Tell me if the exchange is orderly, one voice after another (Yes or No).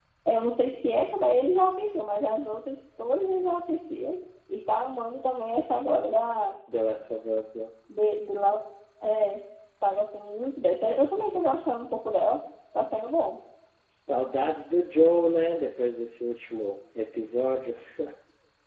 Yes